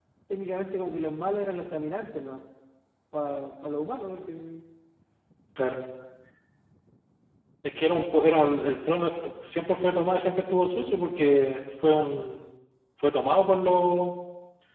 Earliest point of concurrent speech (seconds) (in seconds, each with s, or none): none